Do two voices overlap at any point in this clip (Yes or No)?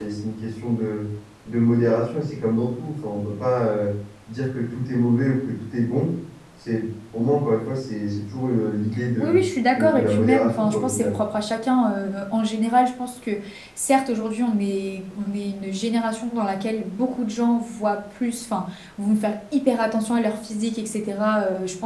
Yes